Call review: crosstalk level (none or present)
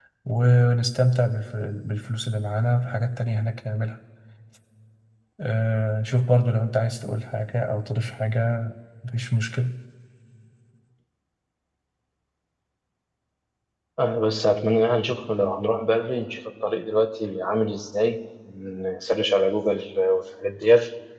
none